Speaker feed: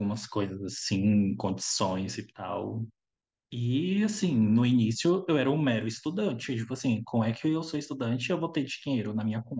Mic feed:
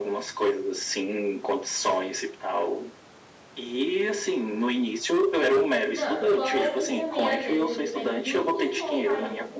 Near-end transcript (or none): Não, fora que também às vezes eles pedem vínculo com o país.